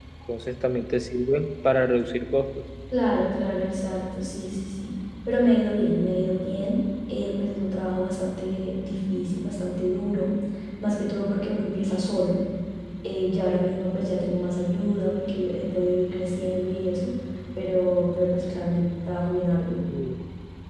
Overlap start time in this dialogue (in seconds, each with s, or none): none